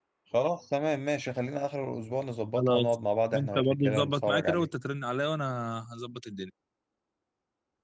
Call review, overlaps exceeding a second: present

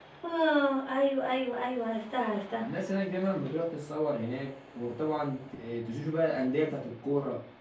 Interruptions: none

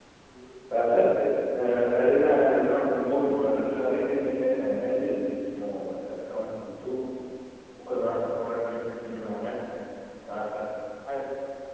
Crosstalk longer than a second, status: present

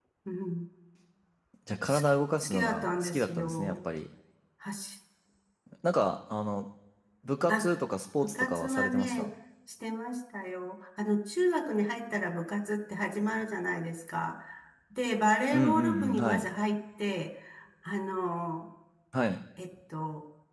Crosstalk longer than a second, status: present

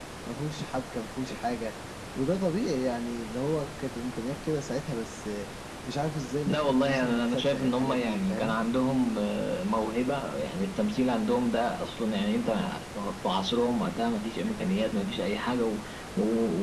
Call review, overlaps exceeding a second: present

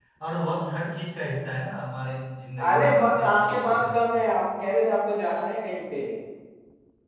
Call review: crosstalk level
present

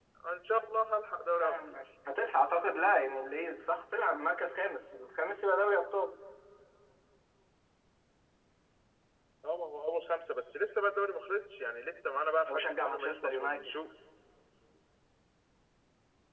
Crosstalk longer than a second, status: present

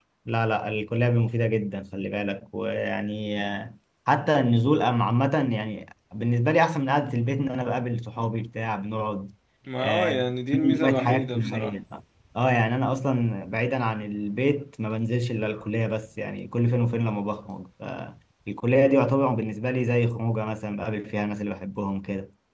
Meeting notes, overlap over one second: present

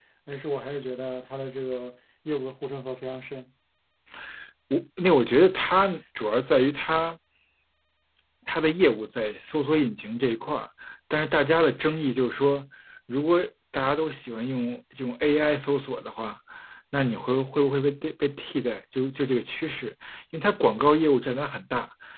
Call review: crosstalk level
none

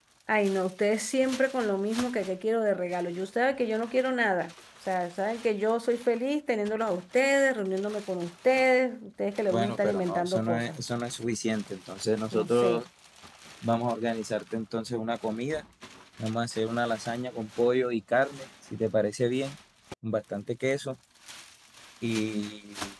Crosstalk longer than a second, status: present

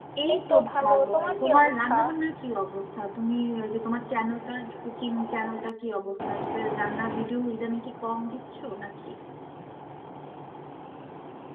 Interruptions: present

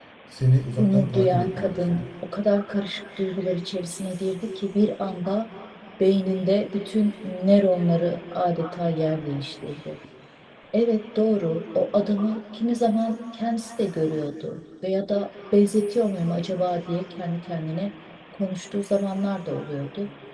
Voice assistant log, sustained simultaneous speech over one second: present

